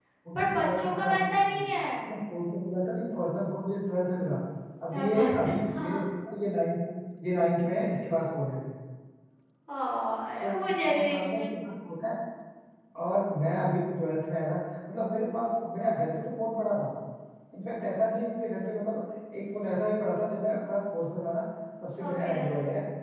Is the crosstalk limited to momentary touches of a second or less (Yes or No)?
No